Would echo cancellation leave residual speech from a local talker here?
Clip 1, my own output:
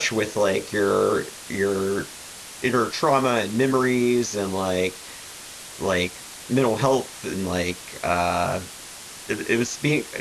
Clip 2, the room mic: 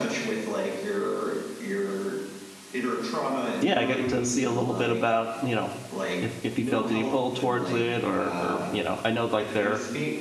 Yes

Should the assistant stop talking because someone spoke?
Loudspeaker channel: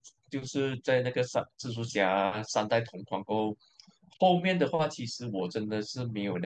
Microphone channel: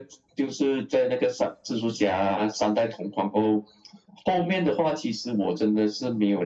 No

